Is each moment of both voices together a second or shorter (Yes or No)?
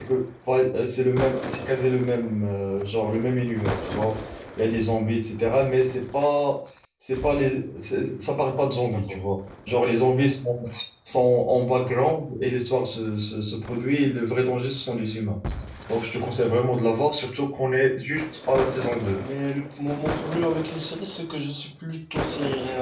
Yes